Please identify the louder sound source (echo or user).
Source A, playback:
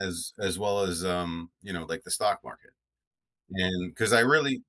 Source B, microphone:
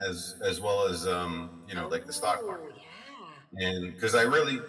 echo